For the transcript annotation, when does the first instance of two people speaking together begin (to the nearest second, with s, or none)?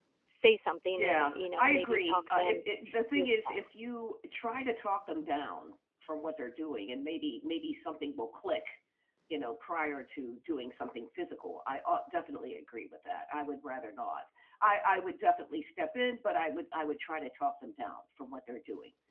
1 s